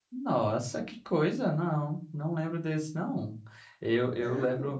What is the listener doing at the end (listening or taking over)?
listening